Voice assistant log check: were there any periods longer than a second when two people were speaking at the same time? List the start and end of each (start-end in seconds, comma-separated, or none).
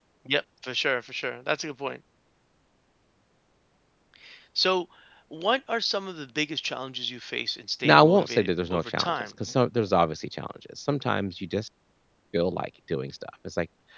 7.8-9.3